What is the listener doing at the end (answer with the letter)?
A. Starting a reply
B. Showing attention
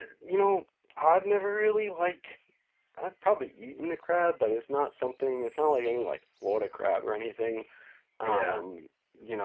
B